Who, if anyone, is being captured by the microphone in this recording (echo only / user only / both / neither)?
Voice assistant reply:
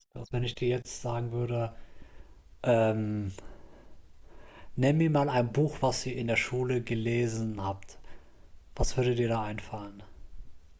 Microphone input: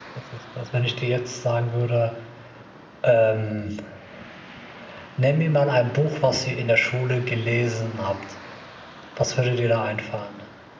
echo only